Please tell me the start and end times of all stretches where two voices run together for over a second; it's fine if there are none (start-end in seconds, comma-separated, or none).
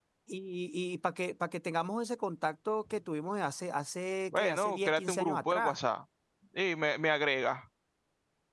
4.3-5.8